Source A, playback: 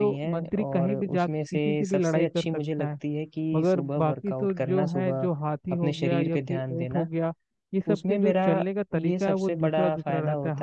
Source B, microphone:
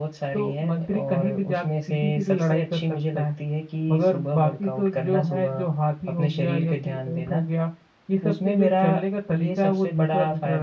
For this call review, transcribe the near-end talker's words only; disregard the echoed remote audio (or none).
none